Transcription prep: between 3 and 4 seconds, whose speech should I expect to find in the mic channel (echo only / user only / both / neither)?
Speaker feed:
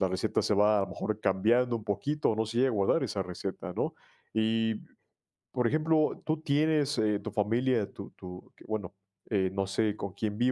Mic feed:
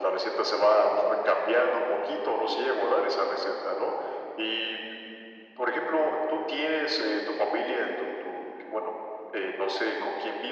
echo only